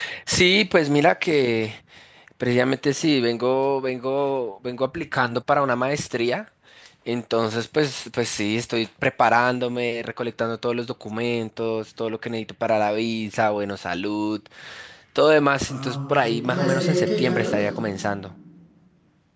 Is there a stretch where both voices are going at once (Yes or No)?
Yes